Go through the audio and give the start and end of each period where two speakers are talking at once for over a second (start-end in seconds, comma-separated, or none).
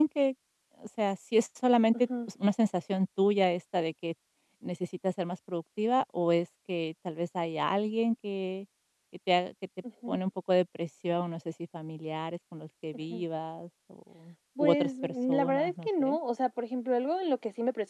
14.6-16.2